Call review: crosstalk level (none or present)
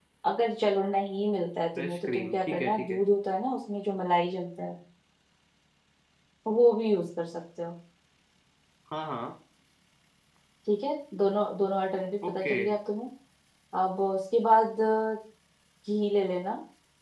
present